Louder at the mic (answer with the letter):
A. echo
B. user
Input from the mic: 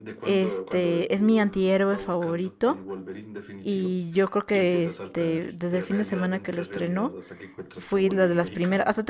B